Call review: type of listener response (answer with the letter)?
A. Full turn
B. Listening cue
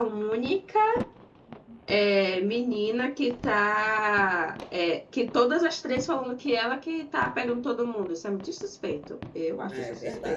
A